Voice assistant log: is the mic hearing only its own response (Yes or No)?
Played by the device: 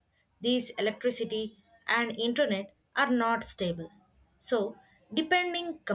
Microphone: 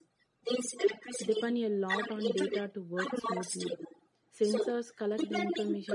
No